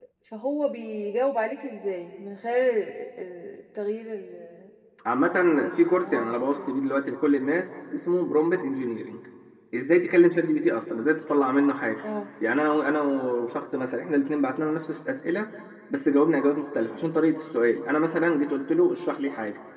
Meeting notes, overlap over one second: present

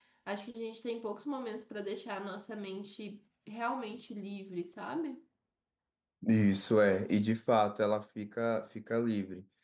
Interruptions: none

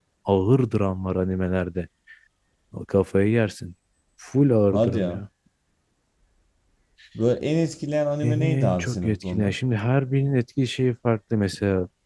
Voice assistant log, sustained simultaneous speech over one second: present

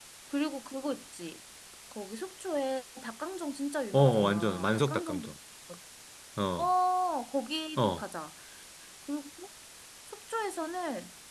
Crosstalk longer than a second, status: present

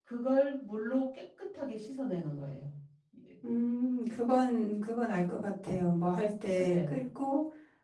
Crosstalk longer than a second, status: none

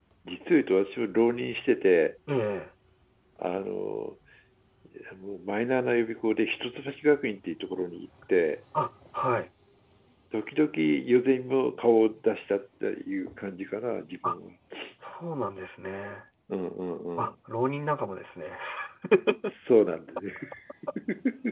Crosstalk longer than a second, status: none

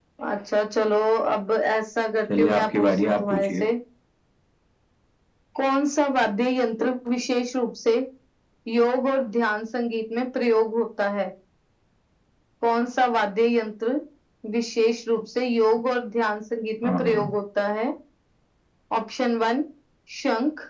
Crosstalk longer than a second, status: present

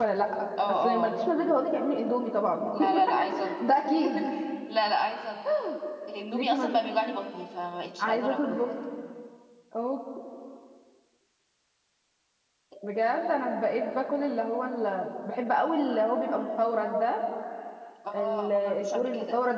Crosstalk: present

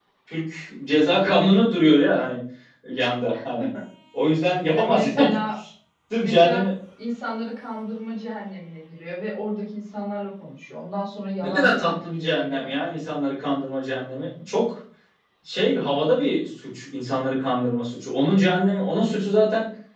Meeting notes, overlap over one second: present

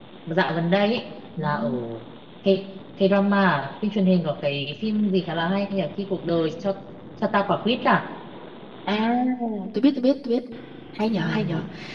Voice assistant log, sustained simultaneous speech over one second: none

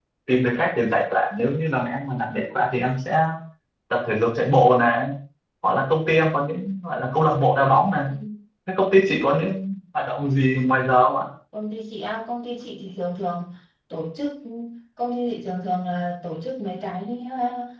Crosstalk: none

